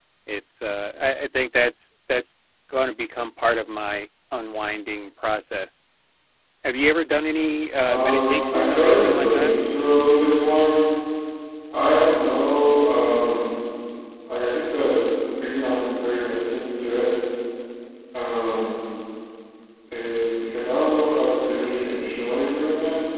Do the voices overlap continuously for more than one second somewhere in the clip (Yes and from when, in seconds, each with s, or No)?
Yes, from 7.9 s